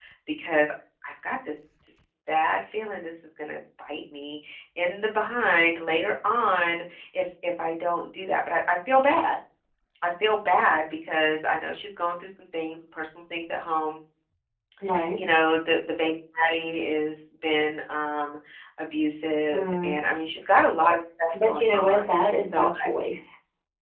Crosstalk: present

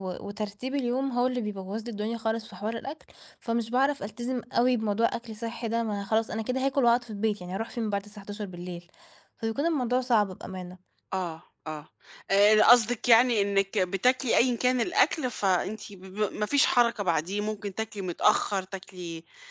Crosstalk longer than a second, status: none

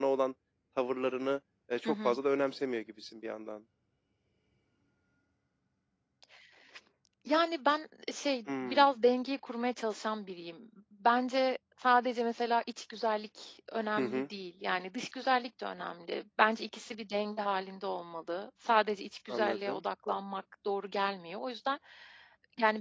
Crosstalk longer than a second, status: none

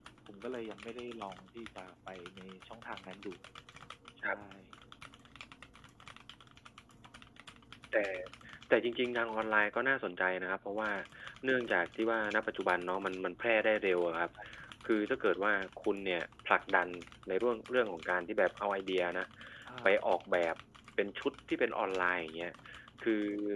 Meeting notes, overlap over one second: none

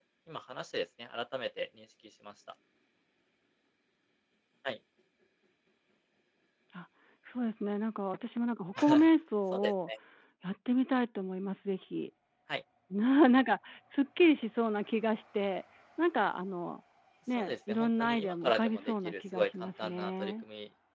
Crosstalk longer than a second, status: present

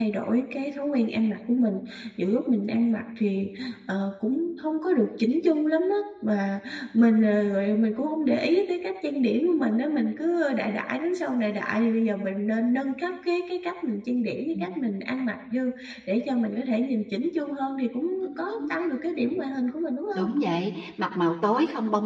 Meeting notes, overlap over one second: none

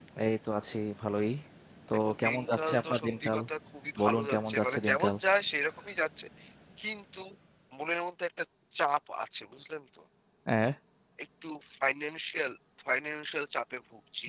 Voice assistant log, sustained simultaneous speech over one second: present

